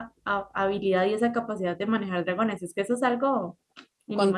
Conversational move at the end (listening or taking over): taking over